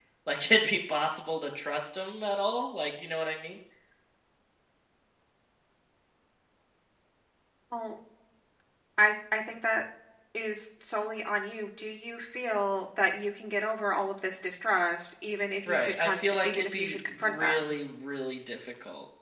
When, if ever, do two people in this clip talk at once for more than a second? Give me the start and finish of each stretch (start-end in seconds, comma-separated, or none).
15.7-17.7